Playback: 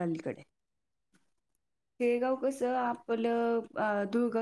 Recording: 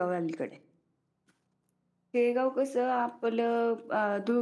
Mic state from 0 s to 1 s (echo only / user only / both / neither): echo only